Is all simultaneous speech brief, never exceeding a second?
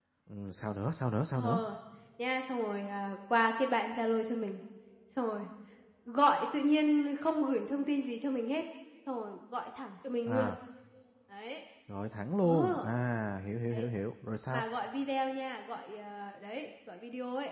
Yes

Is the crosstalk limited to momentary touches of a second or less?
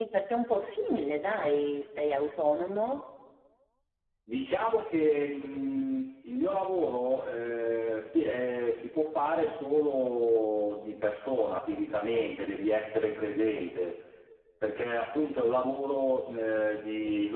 Yes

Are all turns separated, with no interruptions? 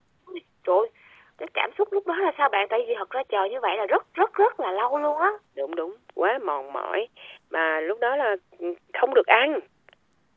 Yes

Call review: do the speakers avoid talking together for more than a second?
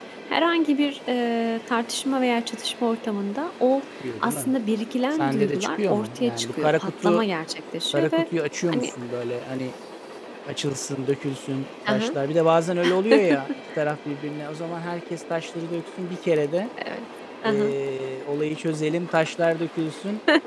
No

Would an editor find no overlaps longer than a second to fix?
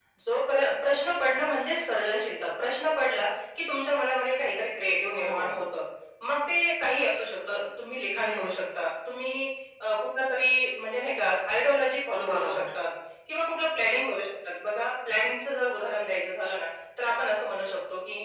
Yes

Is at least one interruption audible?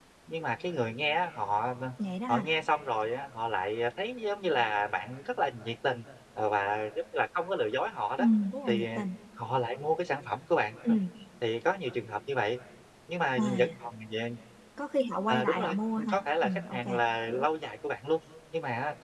Yes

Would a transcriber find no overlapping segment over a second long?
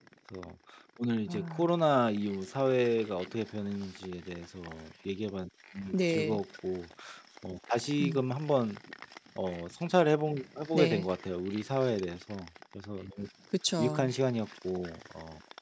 Yes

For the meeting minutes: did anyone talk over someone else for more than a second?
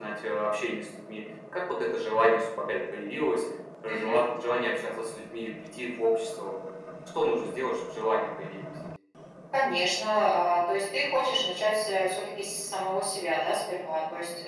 No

